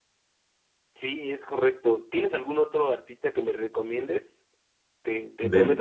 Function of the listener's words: listening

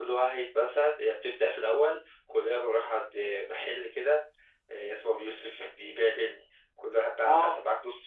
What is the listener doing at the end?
listening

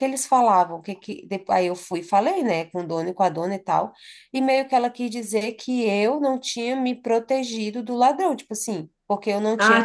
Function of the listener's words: taking over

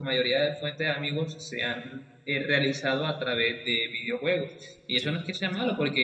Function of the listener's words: listening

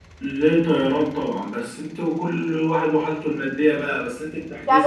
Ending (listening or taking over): taking over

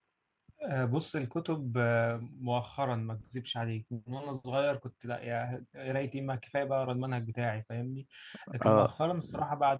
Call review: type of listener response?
listening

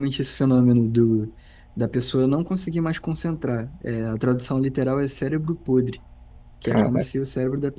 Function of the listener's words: listening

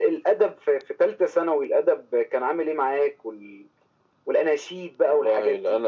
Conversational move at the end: taking over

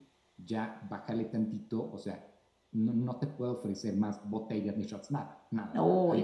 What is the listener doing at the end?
taking over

